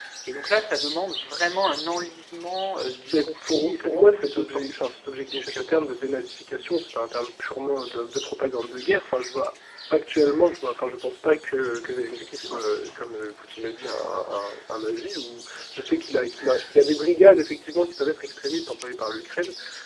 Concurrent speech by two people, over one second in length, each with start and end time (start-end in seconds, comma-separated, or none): 3.1-4.7